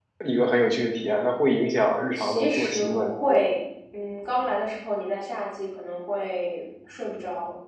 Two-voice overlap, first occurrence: 2.1 s

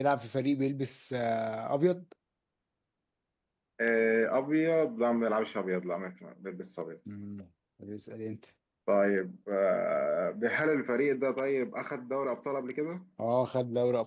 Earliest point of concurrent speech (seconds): none

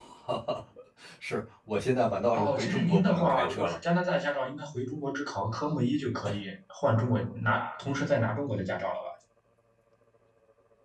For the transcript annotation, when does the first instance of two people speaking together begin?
2.3 s

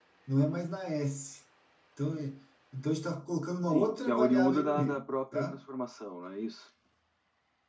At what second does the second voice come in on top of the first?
3.7 s

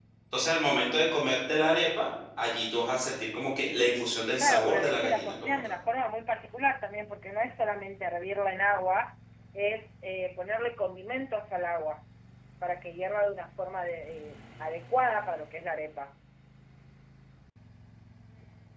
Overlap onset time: 4.4 s

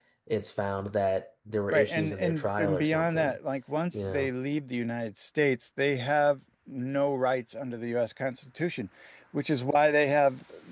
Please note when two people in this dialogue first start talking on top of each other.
1.7 s

